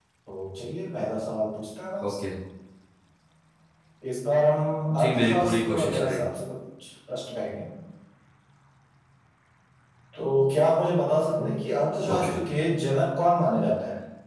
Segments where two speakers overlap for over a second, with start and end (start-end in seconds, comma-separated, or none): 5.0-6.3